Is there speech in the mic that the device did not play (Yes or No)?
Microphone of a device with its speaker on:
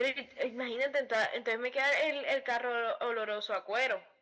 No